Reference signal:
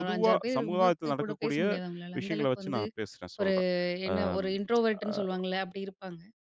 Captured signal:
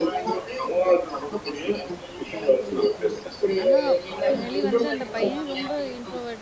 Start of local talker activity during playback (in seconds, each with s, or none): 2.6 s